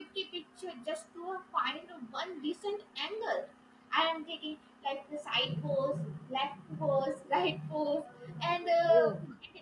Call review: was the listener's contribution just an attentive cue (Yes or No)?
Yes